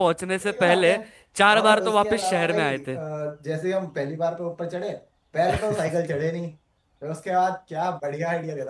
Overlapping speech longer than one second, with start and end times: 1.6-3.0

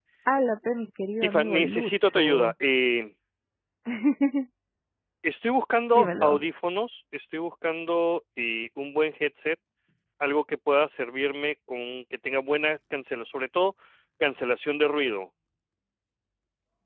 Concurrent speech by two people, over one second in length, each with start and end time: 1.2-2.5

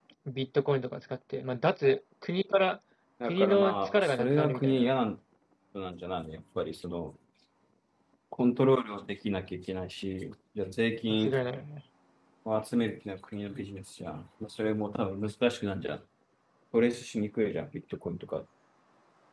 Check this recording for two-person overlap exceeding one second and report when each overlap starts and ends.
3.2-4.9

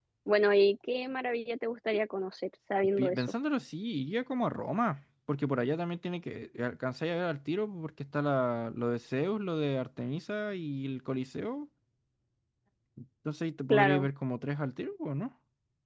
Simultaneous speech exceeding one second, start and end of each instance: none

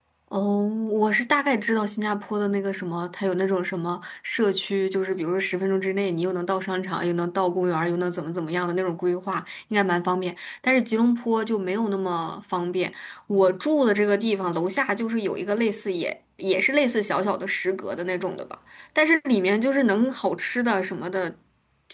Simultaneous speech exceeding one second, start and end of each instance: none

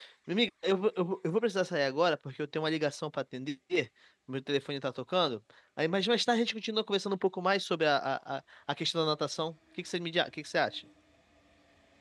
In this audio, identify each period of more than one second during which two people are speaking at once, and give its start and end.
none

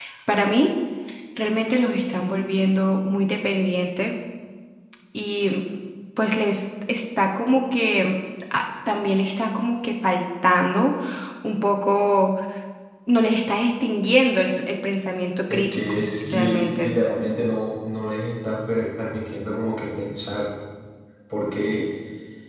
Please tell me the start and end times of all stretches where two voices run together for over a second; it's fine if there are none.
15.5-16.9

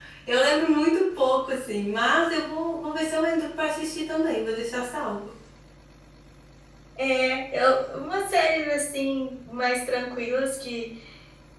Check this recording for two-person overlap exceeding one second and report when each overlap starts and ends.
none

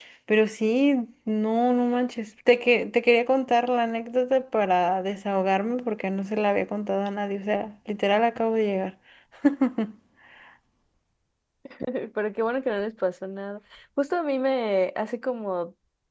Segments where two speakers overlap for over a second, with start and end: none

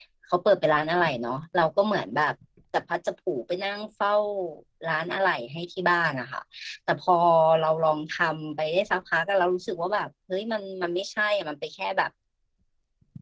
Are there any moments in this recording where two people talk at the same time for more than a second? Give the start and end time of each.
none

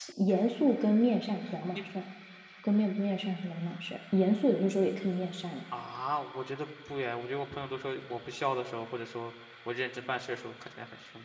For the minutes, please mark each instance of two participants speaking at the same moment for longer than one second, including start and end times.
none

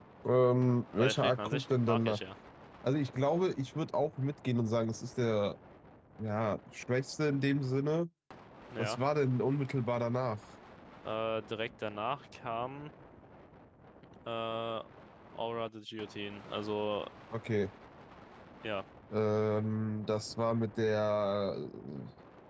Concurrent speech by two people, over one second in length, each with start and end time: 1.0-2.2

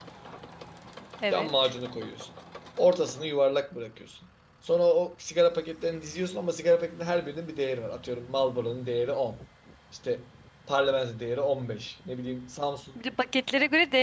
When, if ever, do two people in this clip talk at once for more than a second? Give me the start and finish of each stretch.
none

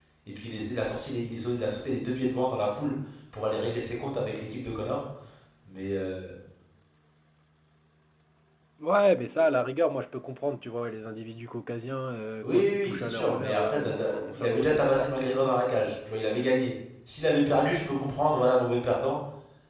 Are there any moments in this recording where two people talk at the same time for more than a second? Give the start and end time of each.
12.4-15.1

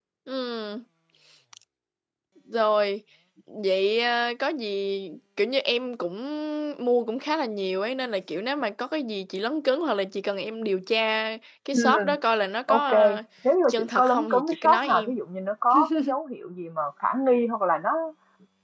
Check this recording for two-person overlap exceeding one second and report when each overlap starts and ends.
13.7-15.1

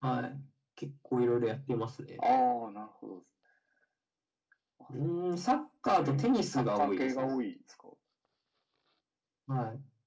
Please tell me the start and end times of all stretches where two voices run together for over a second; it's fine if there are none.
6.0-7.3

